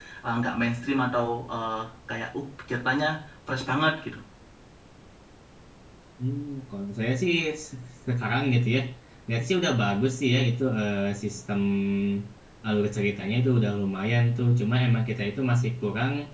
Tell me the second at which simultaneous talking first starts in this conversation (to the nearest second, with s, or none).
none